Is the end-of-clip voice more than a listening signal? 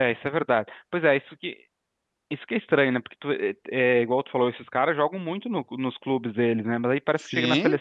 No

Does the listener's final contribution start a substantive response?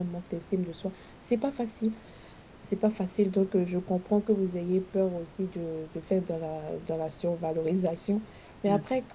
No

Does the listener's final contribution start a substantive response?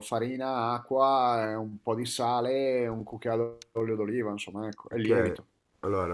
Yes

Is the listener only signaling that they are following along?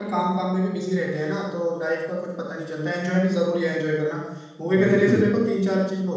Yes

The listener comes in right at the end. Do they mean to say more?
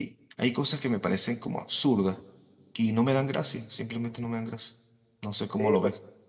Yes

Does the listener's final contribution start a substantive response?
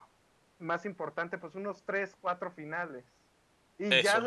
No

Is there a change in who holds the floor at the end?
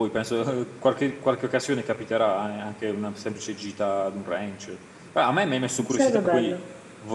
No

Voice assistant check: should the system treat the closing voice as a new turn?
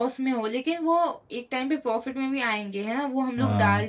No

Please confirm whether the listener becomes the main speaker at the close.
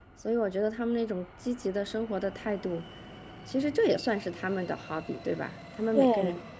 No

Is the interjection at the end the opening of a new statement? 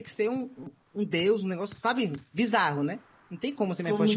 Yes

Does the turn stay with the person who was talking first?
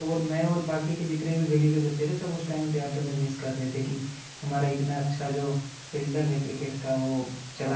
Yes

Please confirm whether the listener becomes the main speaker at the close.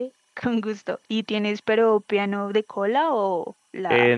Yes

